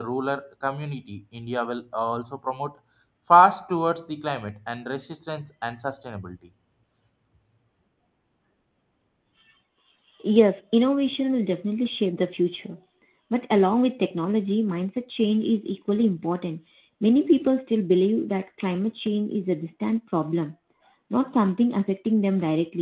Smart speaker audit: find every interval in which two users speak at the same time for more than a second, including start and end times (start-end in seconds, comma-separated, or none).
none